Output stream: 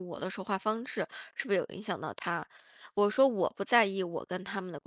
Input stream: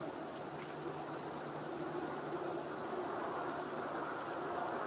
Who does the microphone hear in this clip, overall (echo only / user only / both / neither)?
neither